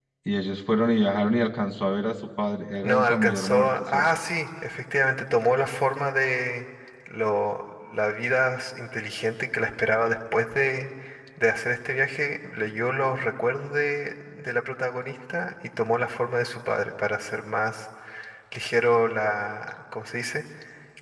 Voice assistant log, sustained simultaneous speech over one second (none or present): present